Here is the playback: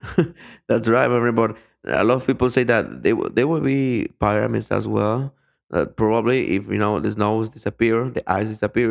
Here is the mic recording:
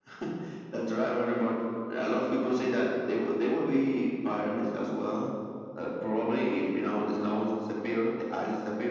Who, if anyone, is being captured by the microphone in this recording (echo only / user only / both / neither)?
echo only